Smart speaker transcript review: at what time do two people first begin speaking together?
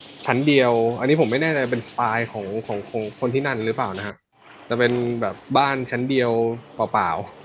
none

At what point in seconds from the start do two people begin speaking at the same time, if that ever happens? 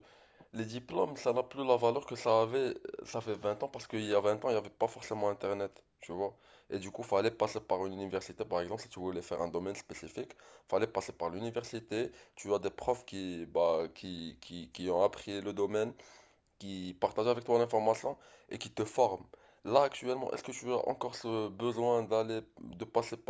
none

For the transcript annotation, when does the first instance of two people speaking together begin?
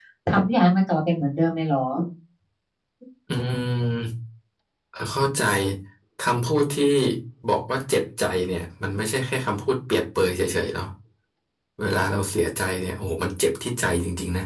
none

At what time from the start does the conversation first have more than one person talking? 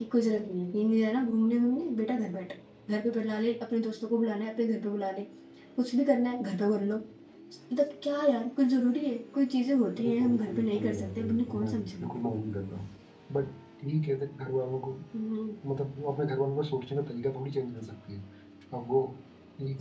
10.0 s

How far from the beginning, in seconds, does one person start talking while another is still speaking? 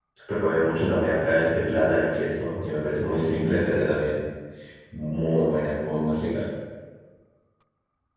none

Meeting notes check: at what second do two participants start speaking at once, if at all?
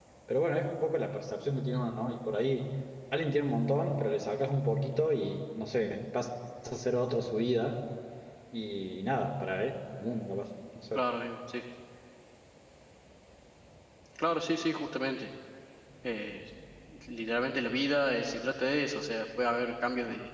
none

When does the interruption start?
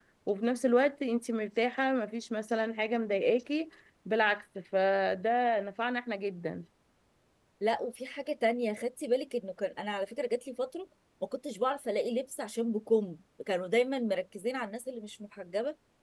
none

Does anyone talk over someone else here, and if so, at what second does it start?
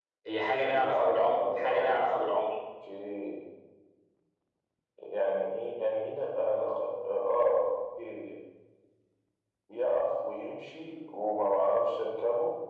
0.7 s

